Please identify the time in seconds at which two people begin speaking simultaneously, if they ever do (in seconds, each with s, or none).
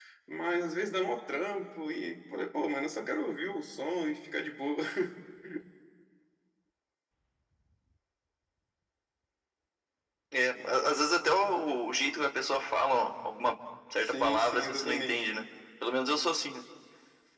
14.0 s